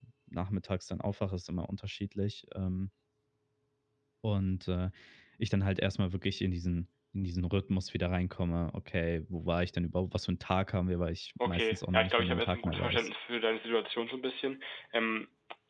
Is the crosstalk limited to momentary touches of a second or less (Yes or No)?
No